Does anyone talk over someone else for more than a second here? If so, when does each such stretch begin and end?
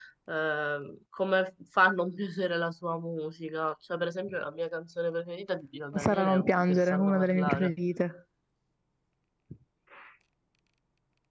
6.0-7.7

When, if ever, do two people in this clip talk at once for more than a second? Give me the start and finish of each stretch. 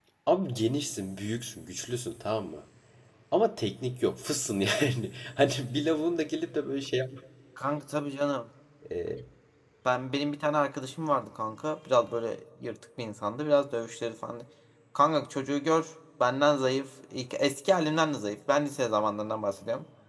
none

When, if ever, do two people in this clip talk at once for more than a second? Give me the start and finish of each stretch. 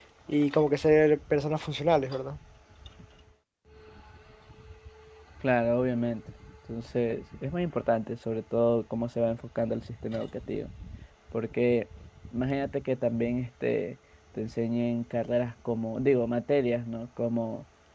none

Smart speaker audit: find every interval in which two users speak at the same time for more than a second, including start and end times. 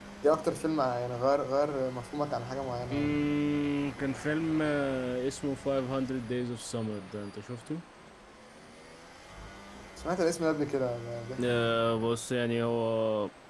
none

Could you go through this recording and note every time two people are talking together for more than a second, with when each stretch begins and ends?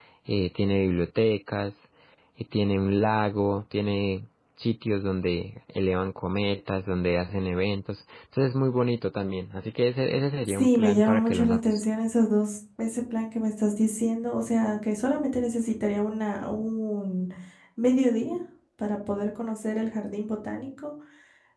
10.5-11.8

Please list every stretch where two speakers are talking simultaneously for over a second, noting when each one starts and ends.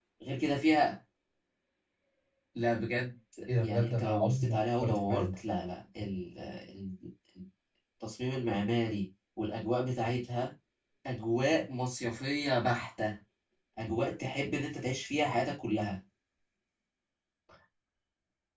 3.6-5.4

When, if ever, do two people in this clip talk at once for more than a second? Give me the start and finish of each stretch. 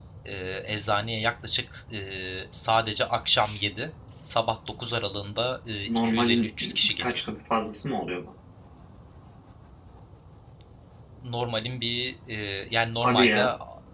5.9-7.2

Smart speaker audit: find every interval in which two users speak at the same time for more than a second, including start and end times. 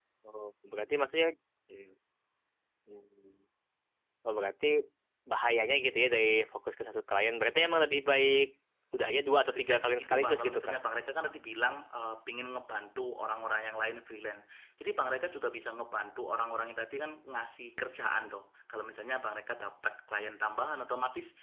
9.5-10.8

